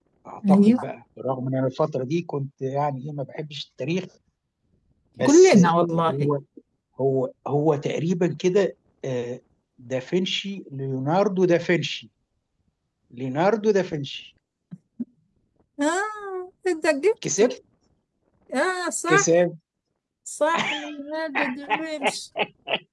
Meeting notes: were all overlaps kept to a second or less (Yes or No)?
Yes